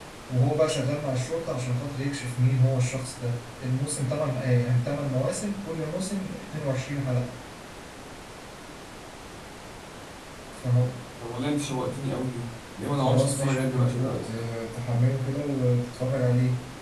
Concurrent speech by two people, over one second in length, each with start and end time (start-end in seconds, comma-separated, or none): 13.0-14.2